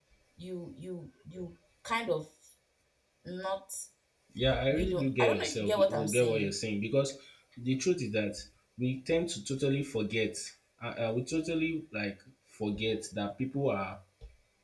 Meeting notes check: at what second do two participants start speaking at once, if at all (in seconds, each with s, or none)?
4.7 s